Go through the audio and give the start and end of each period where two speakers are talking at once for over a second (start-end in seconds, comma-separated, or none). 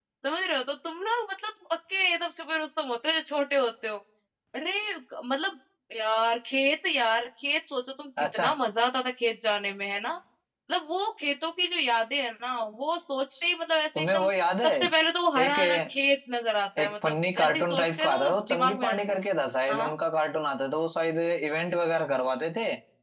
16.8-19.0